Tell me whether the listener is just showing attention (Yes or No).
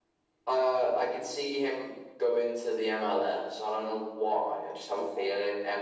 Yes